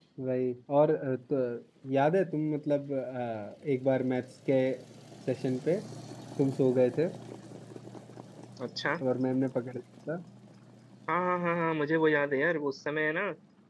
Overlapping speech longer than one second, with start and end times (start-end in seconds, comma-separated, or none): none